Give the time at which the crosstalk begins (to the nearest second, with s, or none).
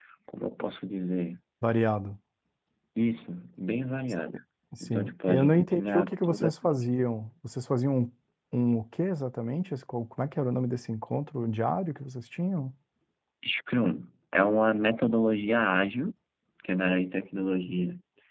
5 s